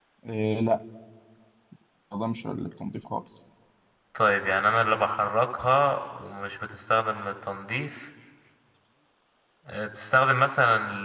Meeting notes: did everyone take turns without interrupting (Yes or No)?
Yes